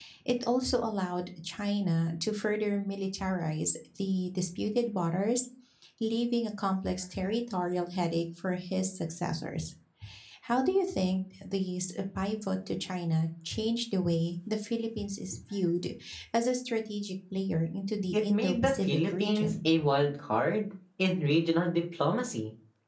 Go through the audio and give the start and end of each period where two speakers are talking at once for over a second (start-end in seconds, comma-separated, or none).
18.1-19.5